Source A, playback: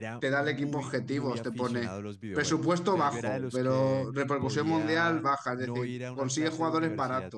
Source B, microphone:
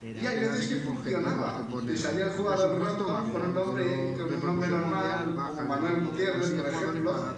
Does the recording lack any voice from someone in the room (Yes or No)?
No